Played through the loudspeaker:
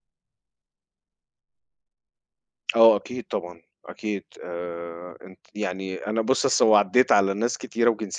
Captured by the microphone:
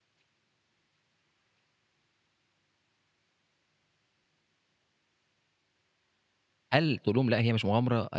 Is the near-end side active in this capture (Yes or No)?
Yes